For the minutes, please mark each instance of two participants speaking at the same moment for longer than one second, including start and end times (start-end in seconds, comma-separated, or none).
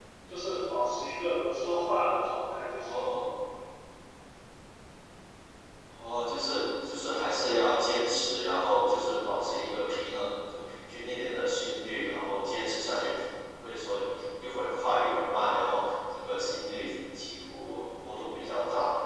none